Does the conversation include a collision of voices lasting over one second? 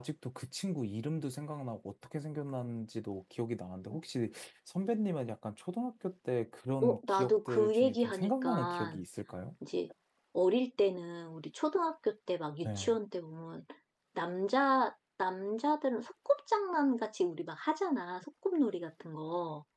Yes, from 6.8 s

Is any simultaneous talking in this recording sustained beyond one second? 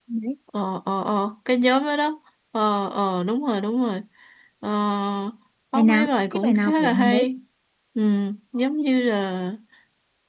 Yes, from 5.7 s

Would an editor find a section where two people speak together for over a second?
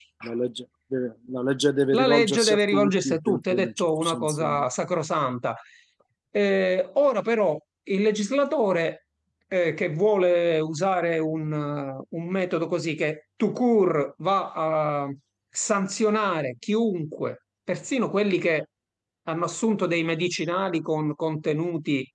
Yes, from 1.9 s

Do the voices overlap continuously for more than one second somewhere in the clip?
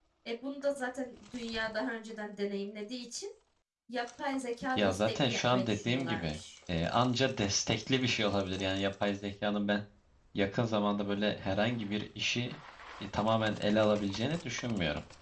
Yes, from 4.8 s

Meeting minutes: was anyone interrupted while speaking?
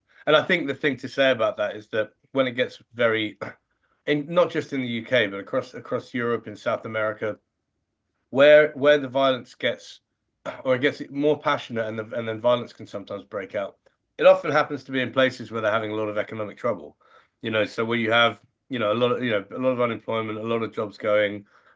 No

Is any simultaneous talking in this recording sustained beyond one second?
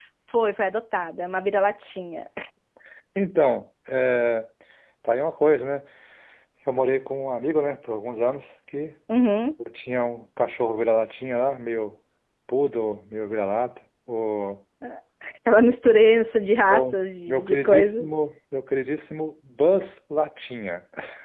Yes, from 16.6 s

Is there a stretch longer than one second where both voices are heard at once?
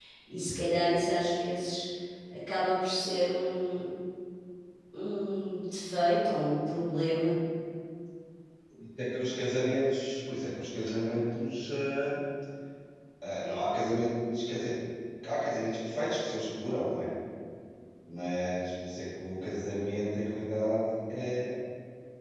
No

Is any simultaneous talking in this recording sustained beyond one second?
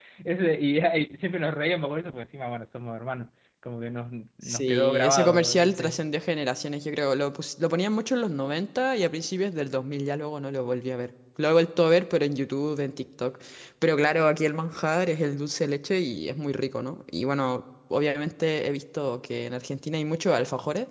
Yes, from 4.4 s

